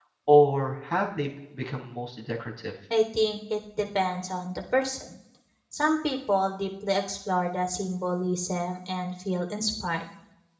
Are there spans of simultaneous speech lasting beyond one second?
No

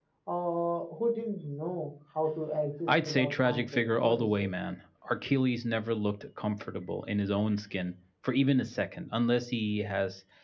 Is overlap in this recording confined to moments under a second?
No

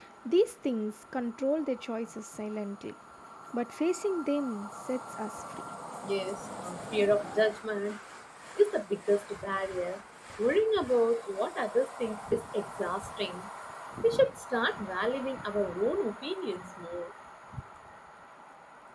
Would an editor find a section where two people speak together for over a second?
No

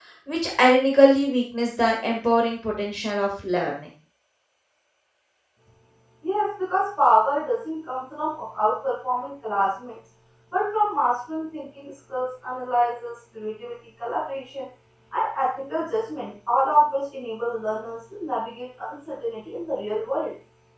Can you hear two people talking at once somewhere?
No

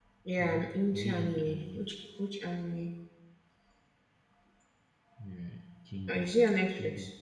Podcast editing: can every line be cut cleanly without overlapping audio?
No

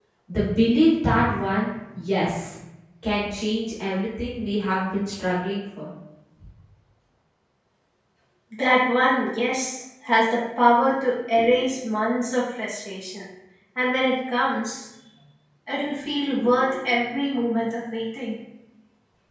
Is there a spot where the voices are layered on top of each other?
No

